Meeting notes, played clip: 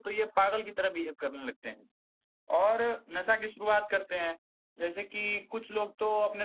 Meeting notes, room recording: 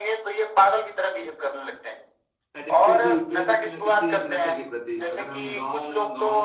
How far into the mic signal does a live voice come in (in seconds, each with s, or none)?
2.6 s